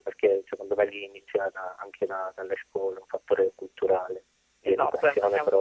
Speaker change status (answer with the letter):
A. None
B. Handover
B